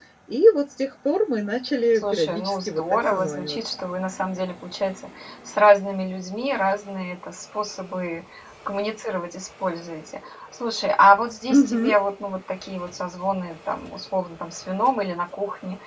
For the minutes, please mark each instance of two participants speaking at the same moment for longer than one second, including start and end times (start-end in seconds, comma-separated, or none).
2.0-3.7